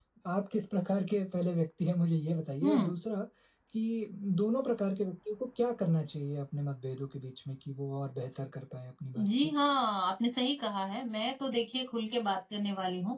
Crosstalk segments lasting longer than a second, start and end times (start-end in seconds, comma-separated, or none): none